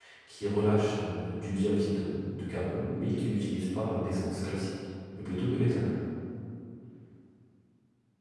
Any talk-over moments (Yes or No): No